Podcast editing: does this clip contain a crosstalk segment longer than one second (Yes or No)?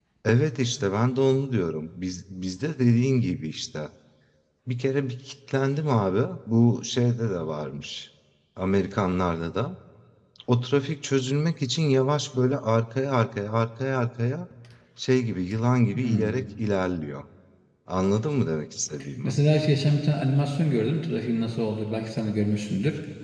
No